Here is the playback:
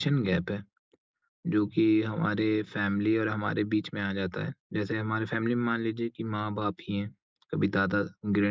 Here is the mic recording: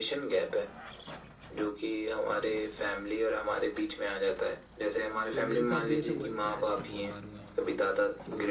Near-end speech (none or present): present